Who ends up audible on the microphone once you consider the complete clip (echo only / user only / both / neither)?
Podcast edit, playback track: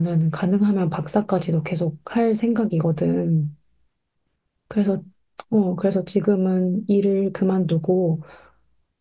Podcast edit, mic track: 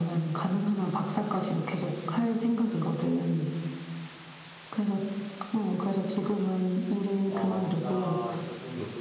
both